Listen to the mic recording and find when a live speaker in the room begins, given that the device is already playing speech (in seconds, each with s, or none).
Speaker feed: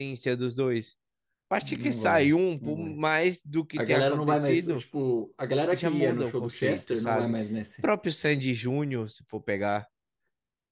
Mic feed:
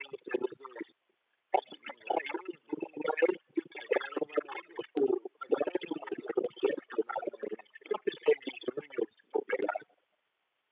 none